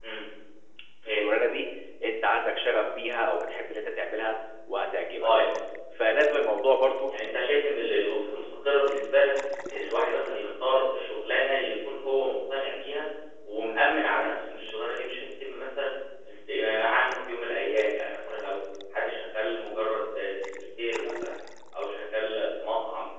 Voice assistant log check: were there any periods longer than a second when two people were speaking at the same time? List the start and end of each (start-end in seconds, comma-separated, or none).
none